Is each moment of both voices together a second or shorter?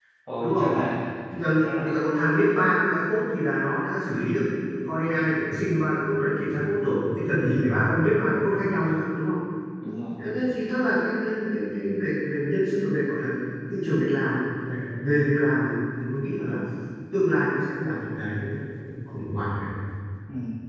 Yes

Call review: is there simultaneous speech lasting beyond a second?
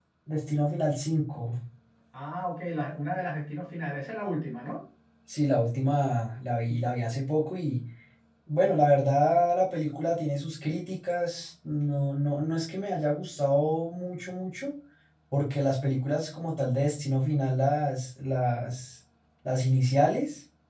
No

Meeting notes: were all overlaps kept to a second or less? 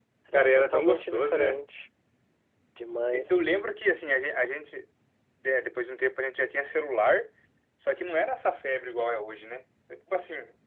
No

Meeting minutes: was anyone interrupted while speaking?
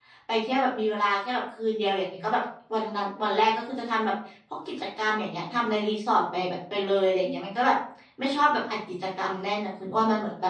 No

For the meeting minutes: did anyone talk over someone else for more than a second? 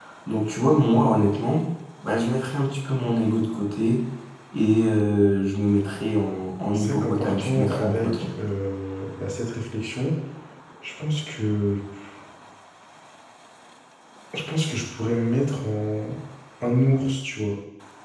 Yes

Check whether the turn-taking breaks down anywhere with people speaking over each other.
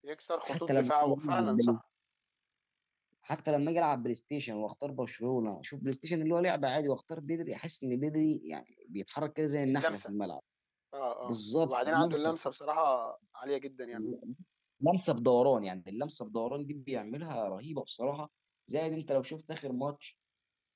Yes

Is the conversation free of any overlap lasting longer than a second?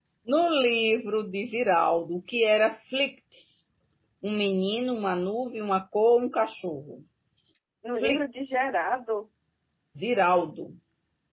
Yes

